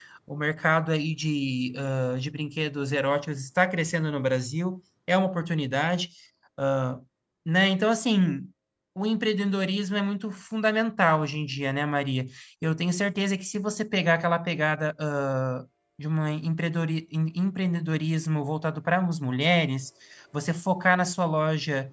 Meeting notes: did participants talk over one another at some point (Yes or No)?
No